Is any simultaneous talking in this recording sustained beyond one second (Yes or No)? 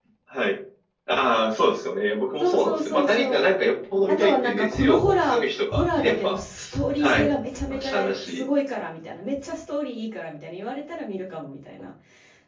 Yes